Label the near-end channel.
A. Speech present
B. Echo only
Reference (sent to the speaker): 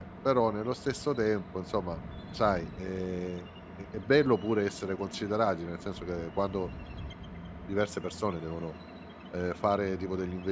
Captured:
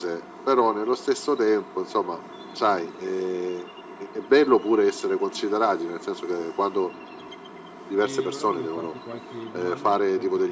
A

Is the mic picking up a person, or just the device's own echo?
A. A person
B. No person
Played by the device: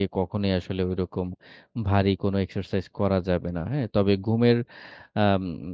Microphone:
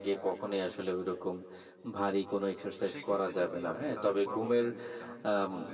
A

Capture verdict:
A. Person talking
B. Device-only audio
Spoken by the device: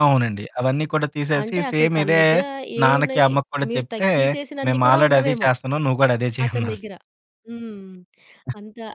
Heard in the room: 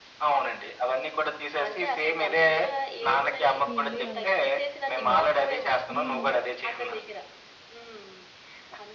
A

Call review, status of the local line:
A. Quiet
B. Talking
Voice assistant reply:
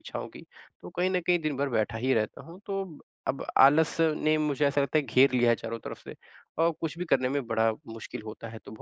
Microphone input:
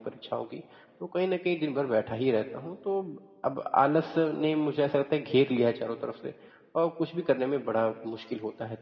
A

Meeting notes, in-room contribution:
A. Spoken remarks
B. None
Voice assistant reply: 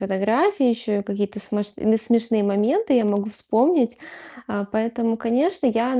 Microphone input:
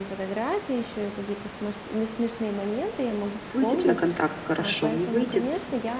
A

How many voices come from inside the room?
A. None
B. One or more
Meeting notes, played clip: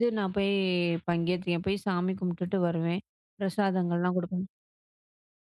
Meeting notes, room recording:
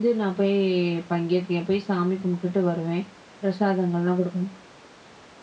A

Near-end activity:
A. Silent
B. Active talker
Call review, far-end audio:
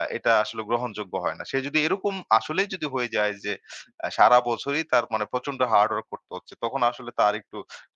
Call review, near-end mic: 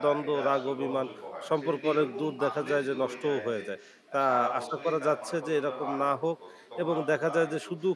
B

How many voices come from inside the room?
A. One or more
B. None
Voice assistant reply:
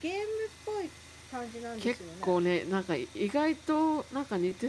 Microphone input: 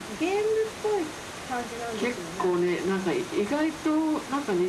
B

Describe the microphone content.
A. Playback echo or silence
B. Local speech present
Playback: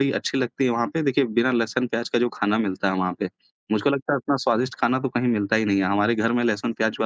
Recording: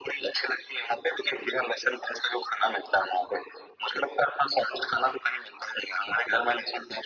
A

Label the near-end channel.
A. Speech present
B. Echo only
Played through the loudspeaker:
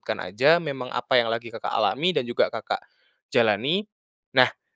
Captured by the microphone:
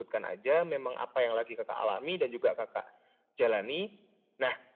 B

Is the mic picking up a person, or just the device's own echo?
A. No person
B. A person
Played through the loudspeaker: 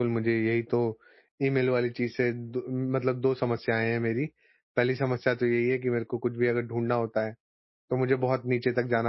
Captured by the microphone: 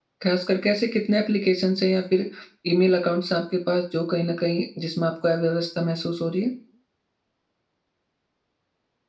B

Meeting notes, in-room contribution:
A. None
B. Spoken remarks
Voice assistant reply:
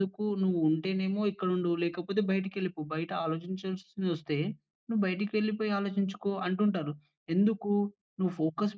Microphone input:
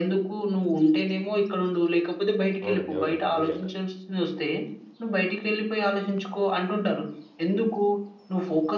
B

